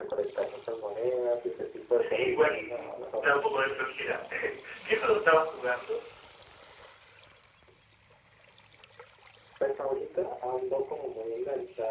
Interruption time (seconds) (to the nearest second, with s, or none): 2 s